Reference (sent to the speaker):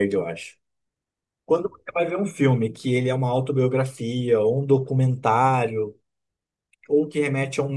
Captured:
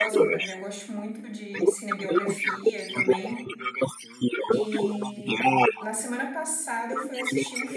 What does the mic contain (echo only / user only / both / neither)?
both